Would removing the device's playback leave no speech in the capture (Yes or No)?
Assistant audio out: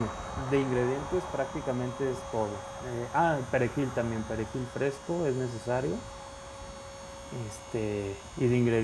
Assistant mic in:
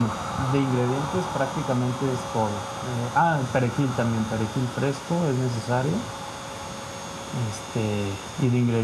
Yes